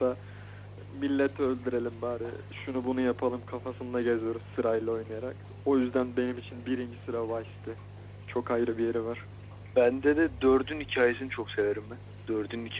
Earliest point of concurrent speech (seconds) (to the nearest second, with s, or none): none